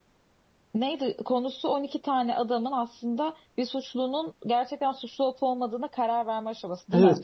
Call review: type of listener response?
taking over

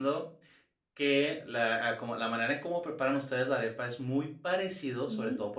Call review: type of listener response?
listening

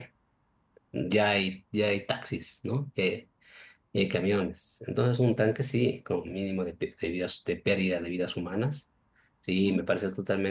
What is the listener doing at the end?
listening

